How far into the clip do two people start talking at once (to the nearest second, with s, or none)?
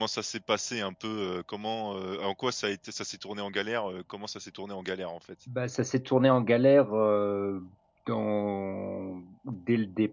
none